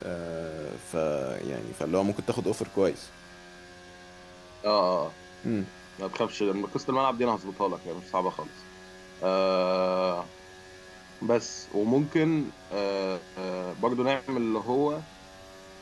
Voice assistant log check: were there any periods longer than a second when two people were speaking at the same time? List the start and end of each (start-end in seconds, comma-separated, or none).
none